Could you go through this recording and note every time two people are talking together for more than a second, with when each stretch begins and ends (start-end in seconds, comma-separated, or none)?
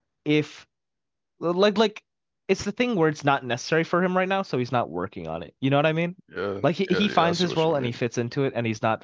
6.6-8.0